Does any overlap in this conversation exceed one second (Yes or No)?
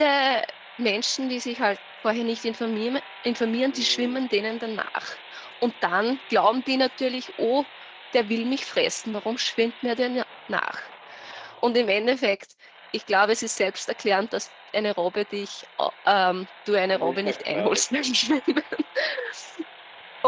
Yes